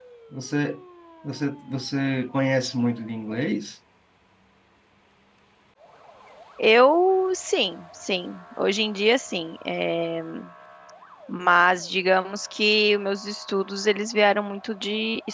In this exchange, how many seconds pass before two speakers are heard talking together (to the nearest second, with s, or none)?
none